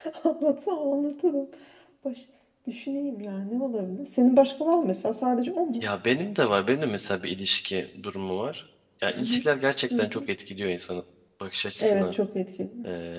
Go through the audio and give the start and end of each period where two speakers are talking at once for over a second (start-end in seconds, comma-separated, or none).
none